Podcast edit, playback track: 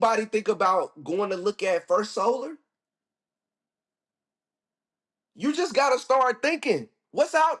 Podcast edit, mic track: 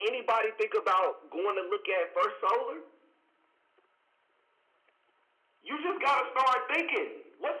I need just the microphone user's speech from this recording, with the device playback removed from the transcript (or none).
none